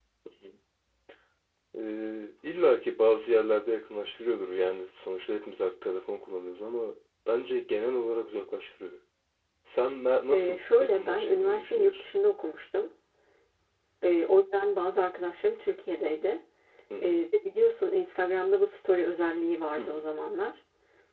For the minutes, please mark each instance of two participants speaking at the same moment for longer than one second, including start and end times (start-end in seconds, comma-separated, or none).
10.3-12.0